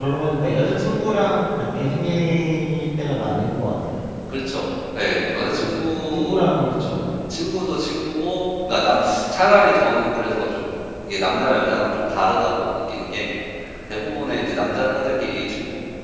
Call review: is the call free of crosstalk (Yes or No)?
No